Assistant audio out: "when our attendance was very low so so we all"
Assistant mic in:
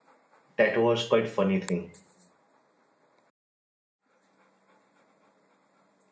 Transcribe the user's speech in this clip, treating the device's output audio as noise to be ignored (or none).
that was quite funny thing.